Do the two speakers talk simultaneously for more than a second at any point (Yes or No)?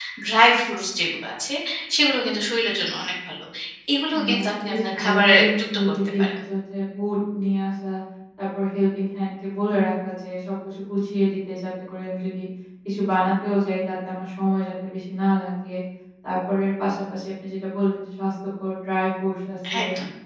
Yes